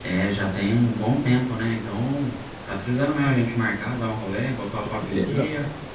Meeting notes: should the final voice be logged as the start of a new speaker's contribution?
Yes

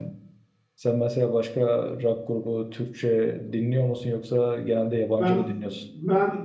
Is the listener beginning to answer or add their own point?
Yes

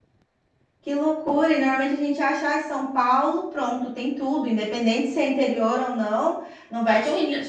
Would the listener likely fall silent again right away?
Yes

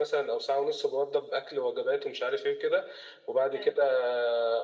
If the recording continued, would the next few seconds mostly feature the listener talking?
No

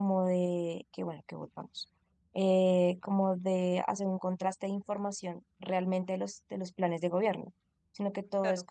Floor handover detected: No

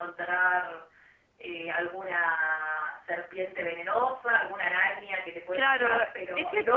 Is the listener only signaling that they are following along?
No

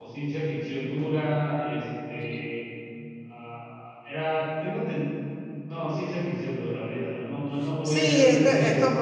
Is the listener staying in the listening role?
No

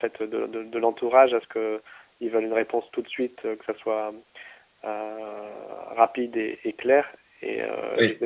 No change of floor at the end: Yes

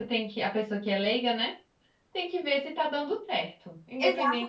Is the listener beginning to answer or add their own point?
Yes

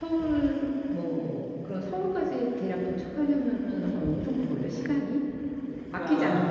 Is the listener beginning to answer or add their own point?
Yes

